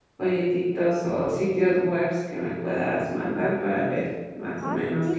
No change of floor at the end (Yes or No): No